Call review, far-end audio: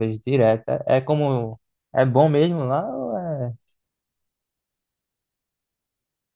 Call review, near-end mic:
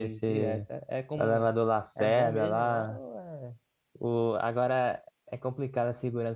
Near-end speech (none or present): present